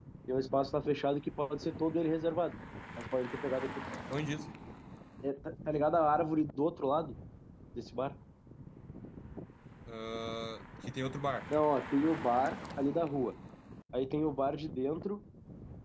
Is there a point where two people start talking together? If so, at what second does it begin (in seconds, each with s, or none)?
none